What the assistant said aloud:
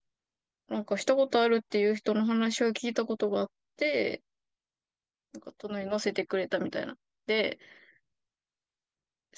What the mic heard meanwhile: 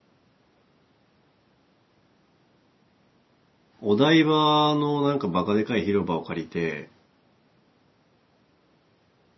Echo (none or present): none